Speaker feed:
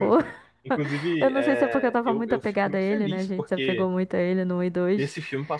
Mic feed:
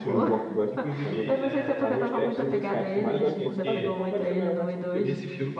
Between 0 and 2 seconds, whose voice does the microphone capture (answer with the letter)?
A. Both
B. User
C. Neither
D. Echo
A